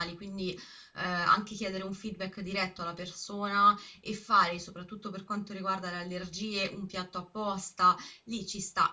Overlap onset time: none

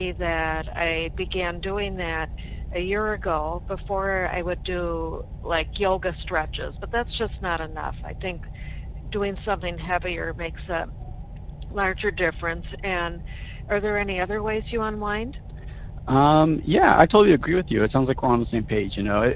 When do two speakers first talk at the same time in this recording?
none

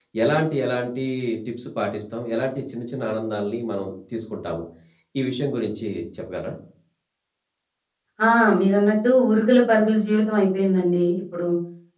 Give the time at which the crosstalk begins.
none

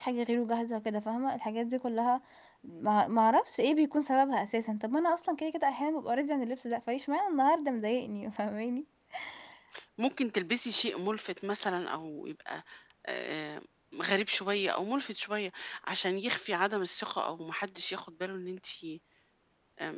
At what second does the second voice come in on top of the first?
none

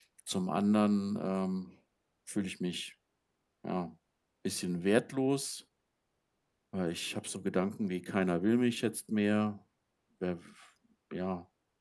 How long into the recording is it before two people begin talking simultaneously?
none

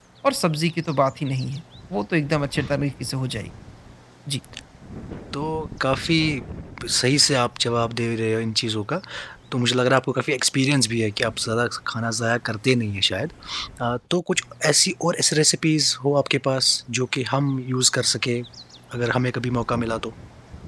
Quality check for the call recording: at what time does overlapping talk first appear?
none

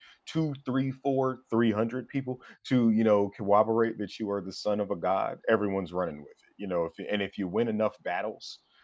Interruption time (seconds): none

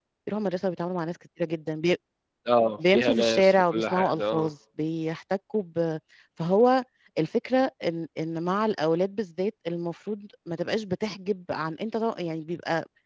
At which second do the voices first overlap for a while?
2.9 s

